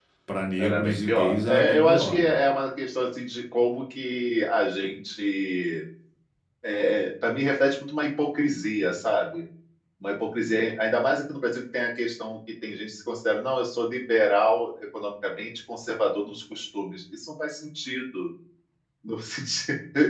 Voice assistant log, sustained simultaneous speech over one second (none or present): present